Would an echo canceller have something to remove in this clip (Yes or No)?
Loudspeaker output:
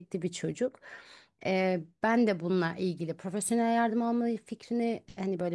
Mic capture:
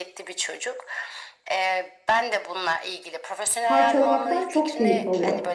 Yes